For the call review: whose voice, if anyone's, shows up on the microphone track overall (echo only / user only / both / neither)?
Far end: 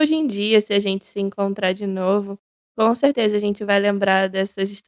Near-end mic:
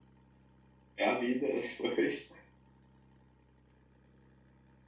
user only